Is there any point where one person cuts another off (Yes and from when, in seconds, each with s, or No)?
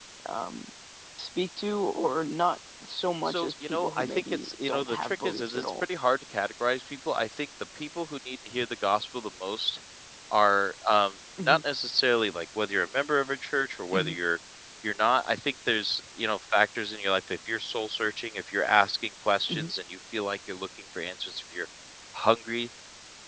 Yes, from 3.2 s